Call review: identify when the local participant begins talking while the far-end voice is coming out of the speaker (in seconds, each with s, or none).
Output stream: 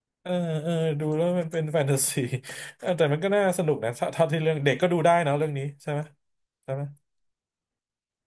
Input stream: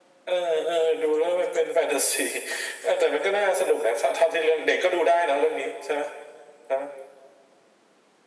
none